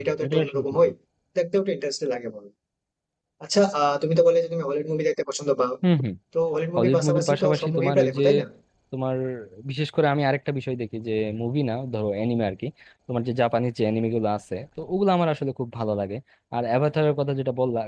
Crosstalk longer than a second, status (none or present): present